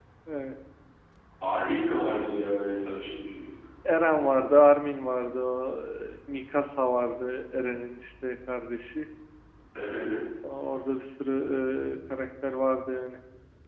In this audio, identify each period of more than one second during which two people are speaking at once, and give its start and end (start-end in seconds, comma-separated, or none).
none